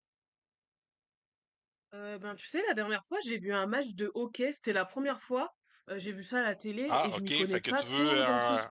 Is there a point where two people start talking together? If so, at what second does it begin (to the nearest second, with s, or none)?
7 s